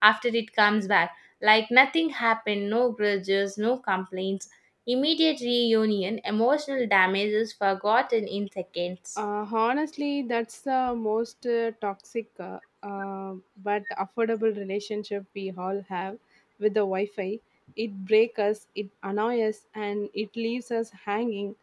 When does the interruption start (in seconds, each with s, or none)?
none